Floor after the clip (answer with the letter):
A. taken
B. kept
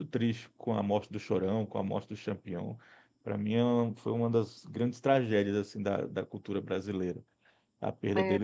A